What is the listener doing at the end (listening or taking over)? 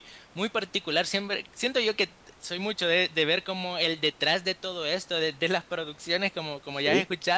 listening